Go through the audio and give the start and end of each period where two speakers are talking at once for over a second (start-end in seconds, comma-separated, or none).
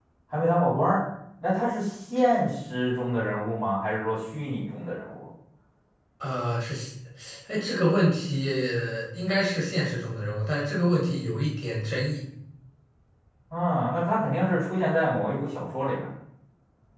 none